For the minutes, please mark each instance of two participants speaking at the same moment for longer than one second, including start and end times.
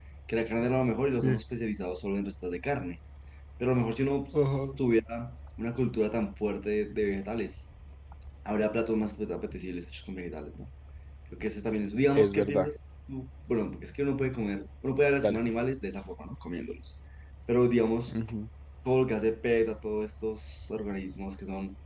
none

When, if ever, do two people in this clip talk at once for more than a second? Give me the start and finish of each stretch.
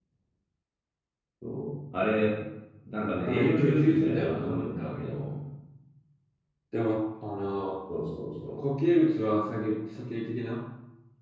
3.2-4.9

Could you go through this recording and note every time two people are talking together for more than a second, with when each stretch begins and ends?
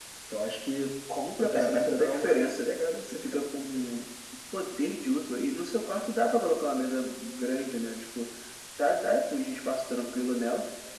1.4-2.7

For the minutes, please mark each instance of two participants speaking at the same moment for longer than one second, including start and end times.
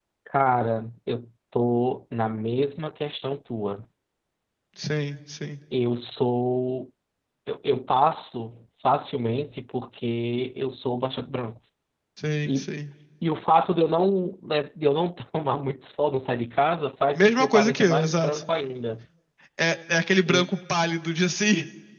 17.2-18.4

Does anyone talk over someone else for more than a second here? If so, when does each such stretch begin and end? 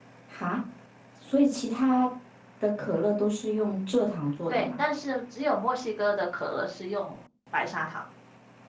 none

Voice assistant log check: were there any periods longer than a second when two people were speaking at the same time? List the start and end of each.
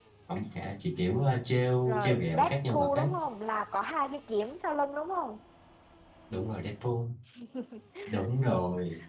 1.8-3.1

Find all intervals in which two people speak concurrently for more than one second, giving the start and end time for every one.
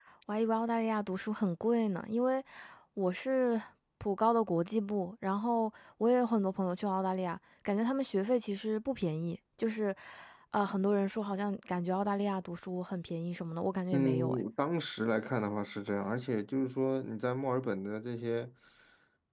none

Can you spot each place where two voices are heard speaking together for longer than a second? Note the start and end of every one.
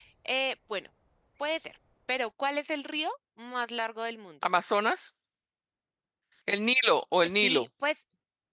none

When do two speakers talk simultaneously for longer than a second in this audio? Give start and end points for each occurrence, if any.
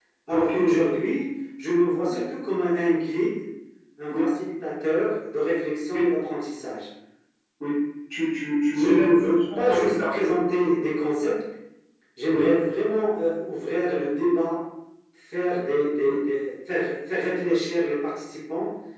8.7-10.4

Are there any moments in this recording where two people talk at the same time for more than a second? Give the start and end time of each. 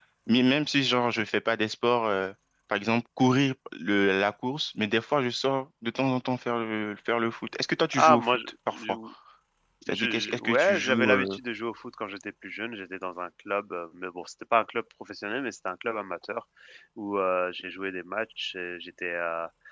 9.9-11.4

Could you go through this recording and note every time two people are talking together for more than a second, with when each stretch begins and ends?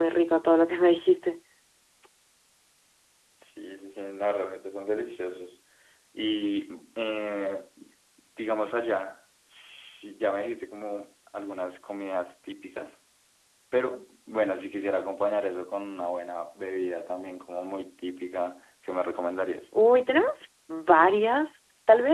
none

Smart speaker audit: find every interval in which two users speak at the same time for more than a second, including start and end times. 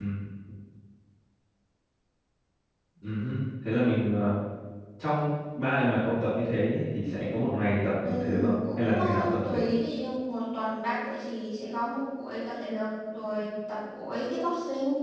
8.0-9.6

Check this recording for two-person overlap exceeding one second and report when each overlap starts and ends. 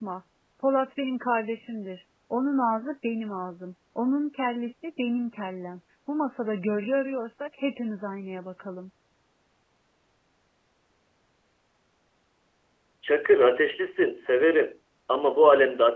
none

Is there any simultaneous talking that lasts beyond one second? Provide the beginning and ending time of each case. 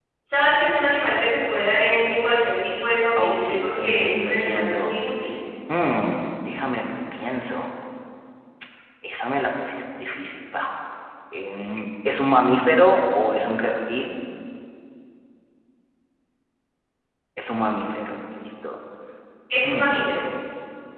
3.2-4.9

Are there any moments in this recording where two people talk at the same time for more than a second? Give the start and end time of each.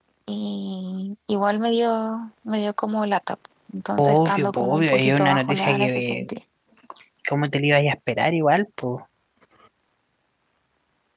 4.0-6.3

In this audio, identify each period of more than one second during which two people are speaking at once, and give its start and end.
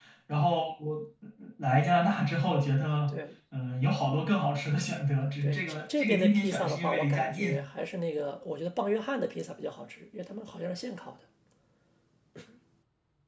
5.4-7.6

